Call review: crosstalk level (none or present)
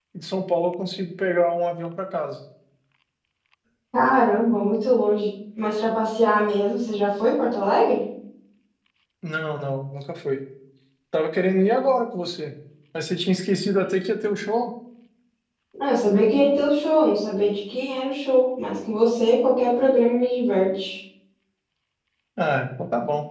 none